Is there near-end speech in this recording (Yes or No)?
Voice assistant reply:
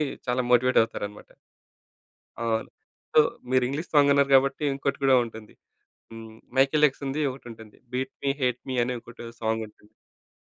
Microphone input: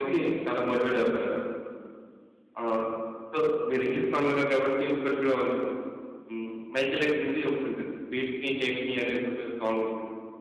No